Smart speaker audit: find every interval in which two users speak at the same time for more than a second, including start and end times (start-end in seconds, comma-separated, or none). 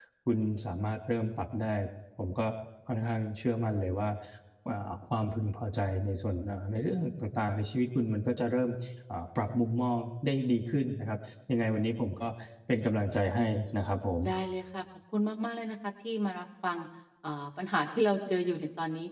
none